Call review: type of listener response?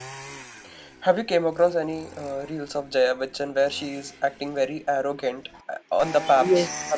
taking over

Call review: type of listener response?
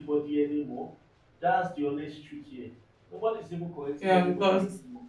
taking over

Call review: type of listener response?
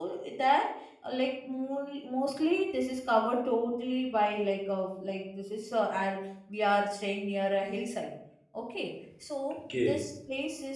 listening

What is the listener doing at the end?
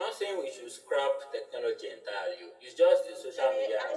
taking over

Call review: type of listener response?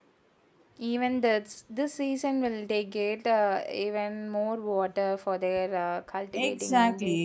taking over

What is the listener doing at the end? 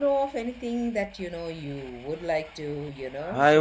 taking over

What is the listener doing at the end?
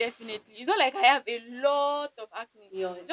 taking over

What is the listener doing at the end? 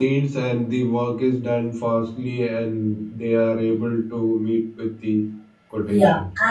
taking over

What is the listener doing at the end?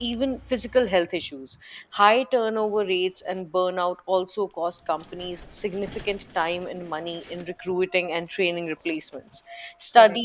listening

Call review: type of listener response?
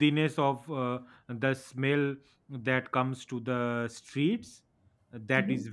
listening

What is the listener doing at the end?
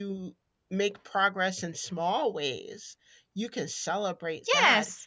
taking over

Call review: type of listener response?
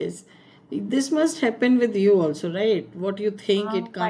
taking over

